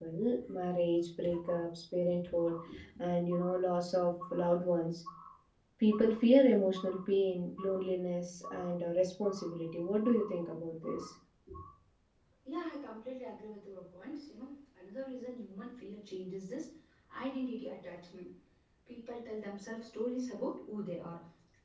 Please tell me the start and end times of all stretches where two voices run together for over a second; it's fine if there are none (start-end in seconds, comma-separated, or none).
none